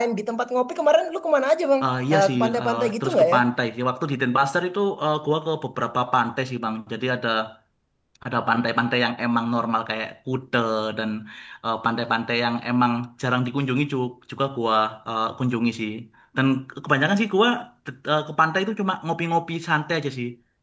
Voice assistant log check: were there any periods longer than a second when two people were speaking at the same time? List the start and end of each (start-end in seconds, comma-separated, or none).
1.9-3.4